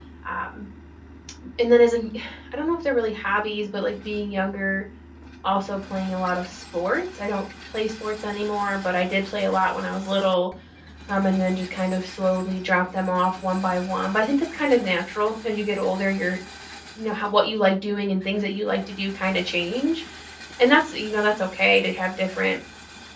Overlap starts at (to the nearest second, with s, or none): none